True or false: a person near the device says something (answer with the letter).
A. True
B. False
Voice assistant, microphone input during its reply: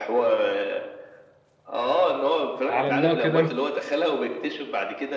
A